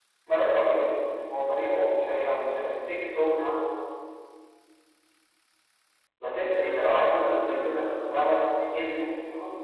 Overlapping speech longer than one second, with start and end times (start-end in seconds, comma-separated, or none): 6.4-8.2